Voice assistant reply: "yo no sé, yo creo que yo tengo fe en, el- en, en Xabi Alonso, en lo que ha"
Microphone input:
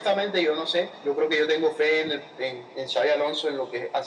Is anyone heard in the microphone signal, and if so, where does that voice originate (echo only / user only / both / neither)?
echo only